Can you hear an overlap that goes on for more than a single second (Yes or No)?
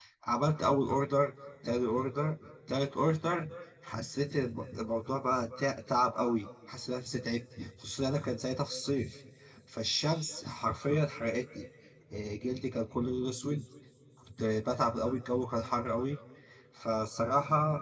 No